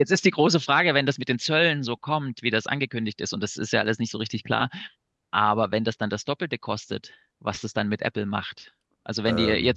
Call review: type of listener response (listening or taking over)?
listening